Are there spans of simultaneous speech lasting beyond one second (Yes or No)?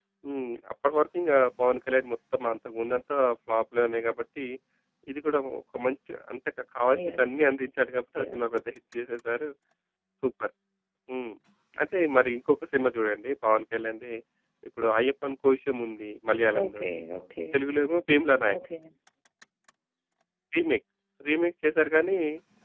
No